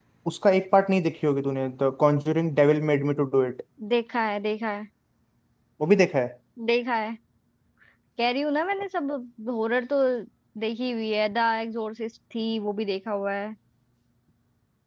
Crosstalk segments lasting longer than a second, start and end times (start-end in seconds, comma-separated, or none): none